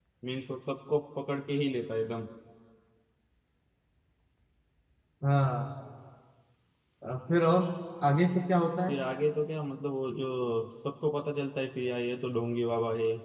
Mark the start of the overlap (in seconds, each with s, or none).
none